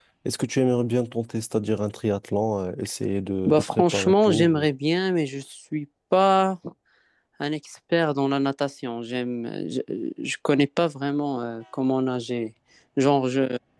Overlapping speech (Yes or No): Yes